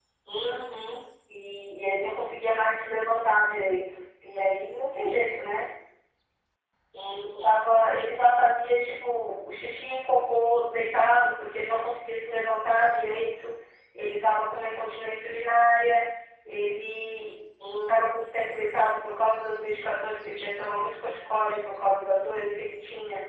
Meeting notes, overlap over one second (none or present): none